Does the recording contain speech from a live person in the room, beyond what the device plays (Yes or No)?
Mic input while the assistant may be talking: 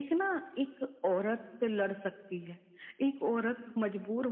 No